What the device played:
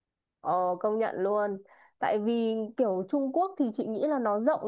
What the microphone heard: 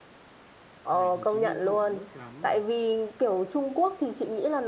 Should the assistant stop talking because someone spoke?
Yes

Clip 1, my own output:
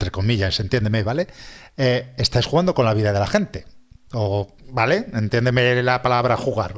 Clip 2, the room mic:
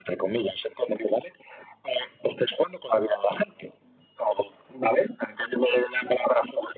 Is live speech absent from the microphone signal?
Yes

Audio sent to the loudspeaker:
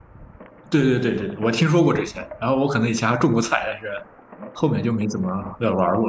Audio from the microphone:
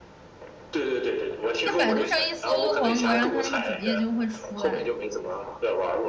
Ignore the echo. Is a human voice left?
Yes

